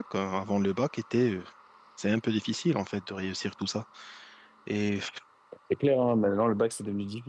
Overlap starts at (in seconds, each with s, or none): none